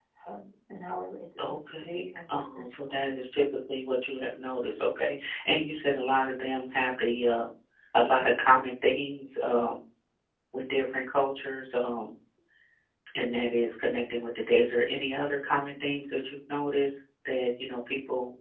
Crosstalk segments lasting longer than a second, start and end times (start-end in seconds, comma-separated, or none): 1.5-3.0